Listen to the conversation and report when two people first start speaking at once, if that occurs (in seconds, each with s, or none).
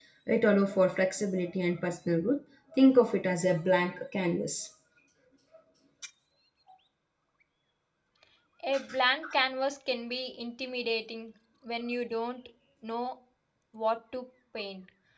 none